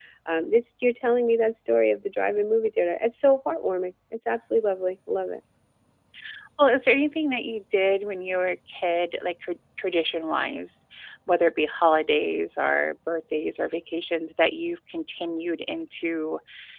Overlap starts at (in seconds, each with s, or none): none